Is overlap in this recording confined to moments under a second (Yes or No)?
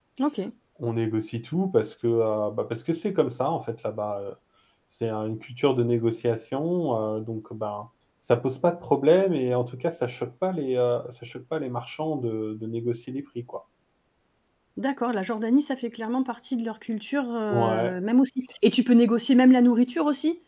Yes